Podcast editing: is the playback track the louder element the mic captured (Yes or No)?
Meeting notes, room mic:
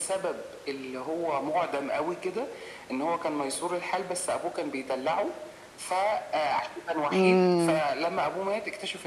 No